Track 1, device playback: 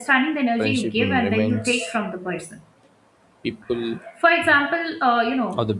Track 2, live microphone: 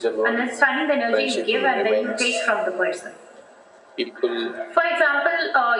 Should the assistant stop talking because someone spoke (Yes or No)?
No